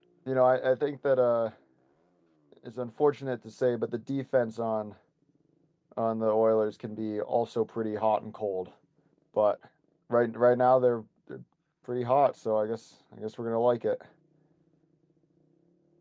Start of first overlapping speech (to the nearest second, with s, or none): none